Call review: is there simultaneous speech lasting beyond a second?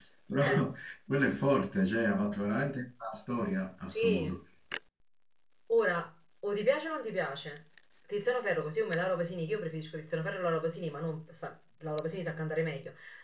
No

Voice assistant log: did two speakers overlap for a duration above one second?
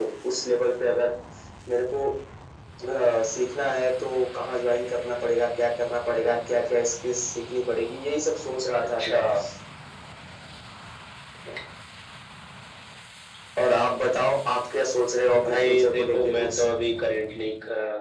Yes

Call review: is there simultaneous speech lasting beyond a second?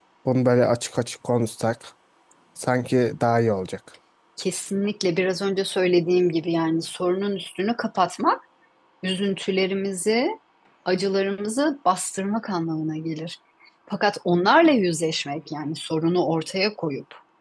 No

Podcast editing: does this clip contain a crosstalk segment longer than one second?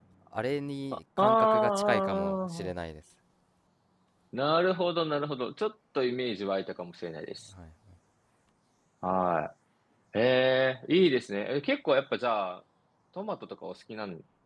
Yes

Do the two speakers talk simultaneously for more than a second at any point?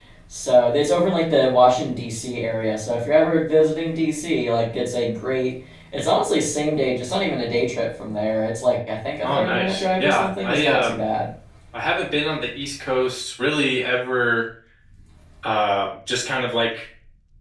Yes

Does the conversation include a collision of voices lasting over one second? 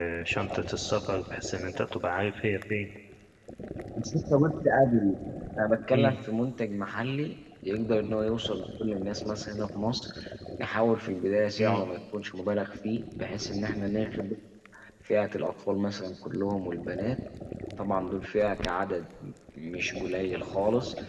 No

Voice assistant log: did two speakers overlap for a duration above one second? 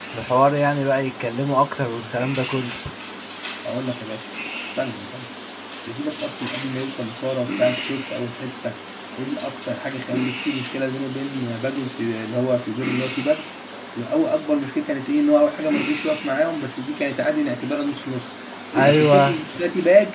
No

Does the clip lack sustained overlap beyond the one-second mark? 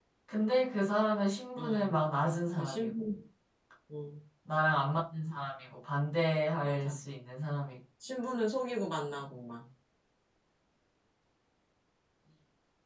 Yes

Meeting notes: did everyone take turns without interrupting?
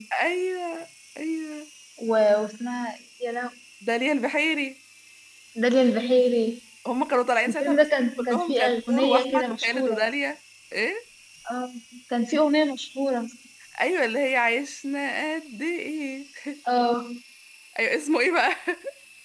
No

